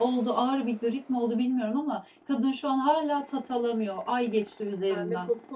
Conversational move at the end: taking over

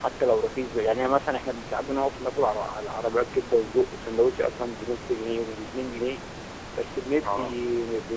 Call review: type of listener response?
listening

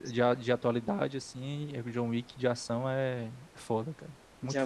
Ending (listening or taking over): taking over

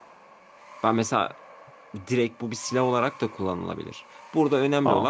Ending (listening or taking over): listening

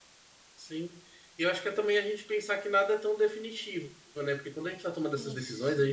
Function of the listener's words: listening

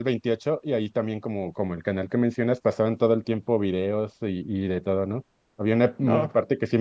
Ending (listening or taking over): listening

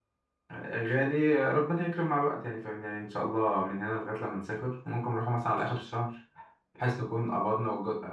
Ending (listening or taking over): listening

